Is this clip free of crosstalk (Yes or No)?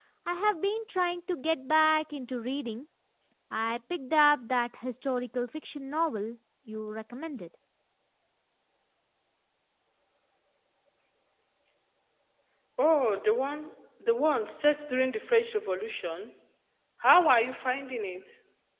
Yes